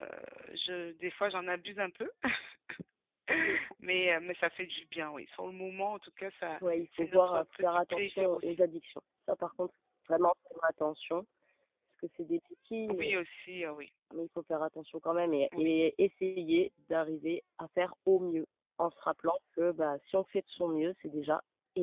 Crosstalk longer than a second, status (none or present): present